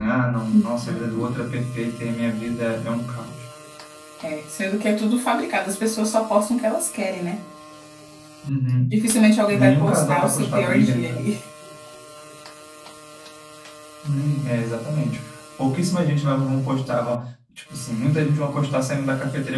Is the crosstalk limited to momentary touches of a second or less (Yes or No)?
No